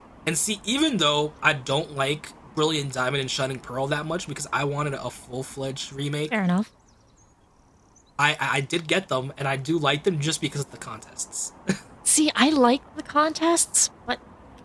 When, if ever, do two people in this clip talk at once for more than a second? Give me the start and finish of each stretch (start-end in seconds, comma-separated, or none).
none